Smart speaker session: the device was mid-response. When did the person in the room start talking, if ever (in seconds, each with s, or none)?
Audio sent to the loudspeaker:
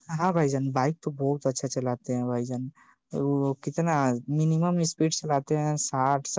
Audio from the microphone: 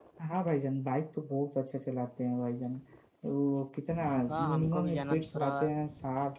4.3 s